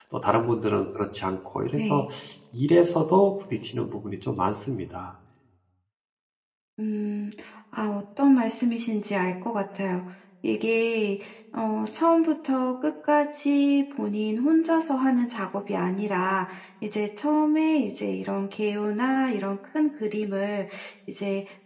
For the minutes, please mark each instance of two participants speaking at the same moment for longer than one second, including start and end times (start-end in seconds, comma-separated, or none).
none